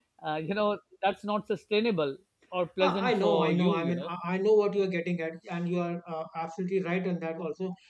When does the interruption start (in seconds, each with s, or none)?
2.8 s